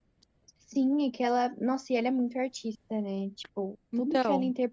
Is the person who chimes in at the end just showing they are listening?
Yes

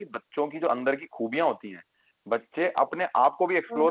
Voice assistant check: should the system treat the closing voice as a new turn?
No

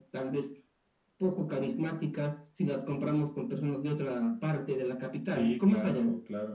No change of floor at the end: No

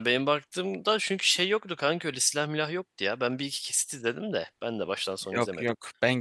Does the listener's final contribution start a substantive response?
Yes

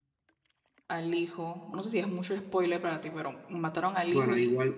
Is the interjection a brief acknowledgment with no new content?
No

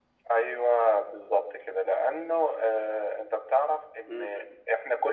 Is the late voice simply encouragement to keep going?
Yes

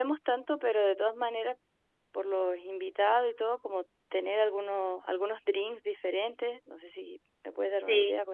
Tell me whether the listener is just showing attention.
No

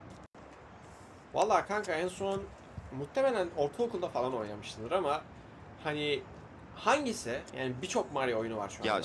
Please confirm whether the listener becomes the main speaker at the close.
Yes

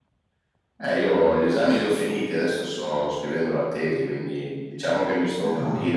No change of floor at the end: Yes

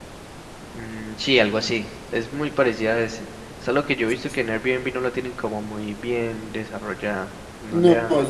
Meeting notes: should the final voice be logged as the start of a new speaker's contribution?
Yes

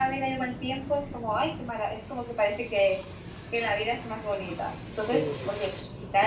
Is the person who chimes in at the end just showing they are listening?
Yes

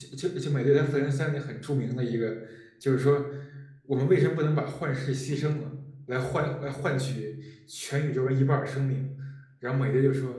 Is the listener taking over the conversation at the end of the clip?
No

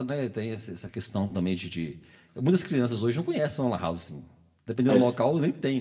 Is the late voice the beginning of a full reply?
No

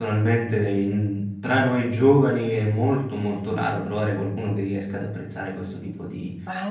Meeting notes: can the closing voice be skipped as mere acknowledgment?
No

